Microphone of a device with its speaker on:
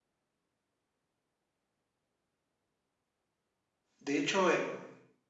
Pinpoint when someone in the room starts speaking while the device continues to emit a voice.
4 s

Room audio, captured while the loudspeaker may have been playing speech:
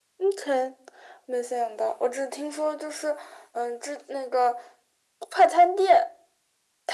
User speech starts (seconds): none

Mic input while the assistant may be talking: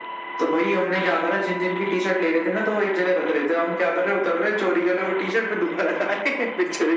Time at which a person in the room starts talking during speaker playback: none

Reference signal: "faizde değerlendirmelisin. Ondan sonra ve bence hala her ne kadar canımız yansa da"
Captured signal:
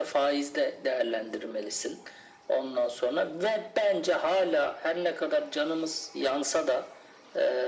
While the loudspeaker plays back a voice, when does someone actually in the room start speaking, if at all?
none

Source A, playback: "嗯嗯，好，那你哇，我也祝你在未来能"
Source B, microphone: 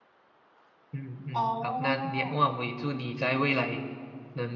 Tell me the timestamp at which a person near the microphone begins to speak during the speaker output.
1 s

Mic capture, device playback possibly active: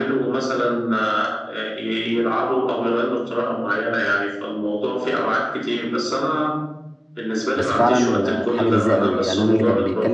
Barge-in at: 8 s

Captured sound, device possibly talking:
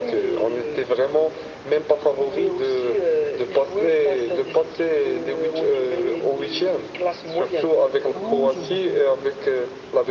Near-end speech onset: 8 s

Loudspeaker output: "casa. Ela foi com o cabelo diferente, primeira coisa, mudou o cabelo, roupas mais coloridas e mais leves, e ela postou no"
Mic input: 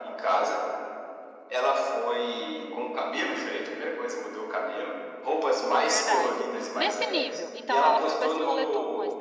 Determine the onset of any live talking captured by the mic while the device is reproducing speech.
6 s

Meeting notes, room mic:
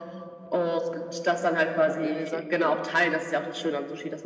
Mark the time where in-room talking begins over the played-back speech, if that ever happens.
2 s

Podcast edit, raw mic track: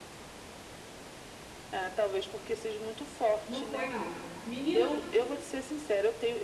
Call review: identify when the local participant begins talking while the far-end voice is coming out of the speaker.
3 s

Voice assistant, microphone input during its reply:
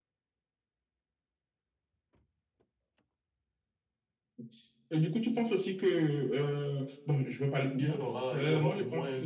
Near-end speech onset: 8 s

